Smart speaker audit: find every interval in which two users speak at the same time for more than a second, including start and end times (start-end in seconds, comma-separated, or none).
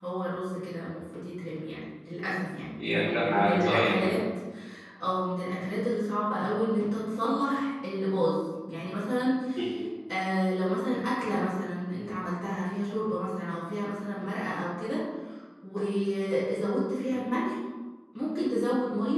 2.8-4.1